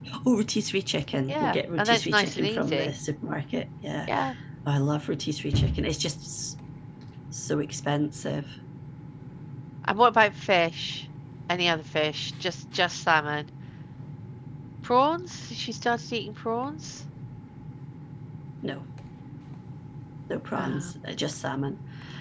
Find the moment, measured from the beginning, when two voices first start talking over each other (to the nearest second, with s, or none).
1 s